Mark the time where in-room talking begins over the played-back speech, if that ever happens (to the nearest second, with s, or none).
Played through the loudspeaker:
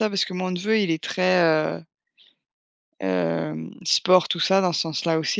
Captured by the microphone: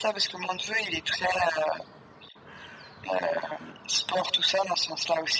none